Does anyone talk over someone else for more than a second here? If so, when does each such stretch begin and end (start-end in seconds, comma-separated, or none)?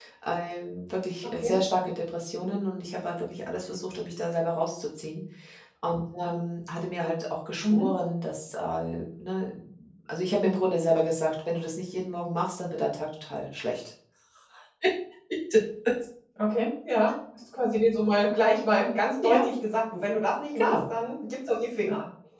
none